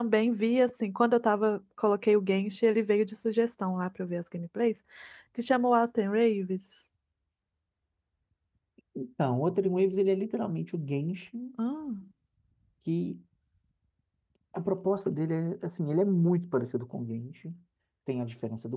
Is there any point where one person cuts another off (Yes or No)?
No